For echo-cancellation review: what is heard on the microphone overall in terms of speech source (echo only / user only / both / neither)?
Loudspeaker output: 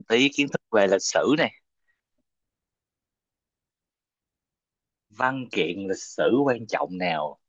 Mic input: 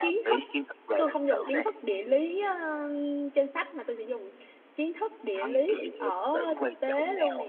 both